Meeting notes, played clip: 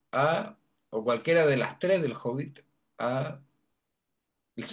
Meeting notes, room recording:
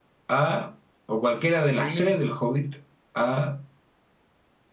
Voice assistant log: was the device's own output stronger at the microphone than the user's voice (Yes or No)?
Yes